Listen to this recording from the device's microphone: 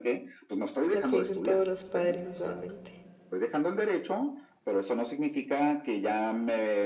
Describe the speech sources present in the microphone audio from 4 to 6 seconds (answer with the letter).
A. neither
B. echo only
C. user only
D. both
B